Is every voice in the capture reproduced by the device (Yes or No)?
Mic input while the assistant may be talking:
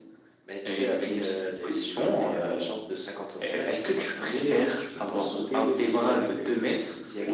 Yes